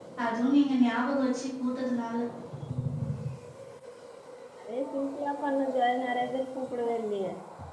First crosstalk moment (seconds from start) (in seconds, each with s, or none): none